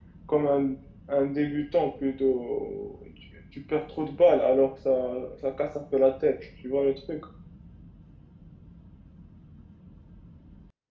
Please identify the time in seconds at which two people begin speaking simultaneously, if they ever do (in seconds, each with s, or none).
none